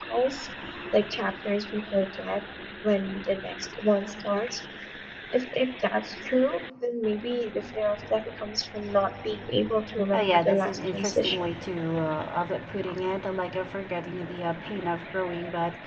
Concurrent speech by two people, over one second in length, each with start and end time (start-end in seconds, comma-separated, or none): 10.1-11.4